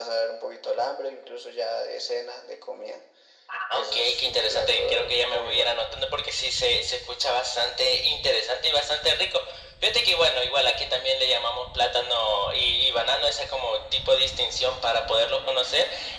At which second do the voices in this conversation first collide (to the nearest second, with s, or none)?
4 s